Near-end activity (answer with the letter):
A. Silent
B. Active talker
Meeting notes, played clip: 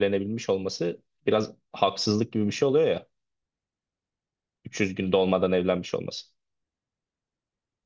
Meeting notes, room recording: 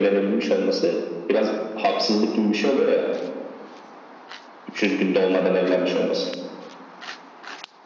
A